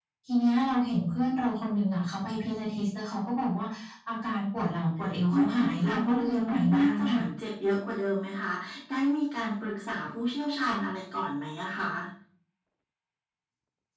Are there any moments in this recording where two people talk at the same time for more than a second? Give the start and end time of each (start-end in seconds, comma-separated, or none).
5.3-7.2